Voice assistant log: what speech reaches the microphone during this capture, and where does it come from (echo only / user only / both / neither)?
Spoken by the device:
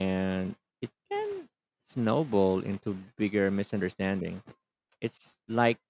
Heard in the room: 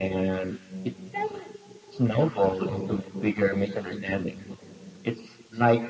echo only